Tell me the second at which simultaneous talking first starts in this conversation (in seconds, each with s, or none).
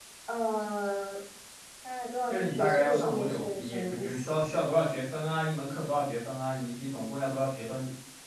2.3 s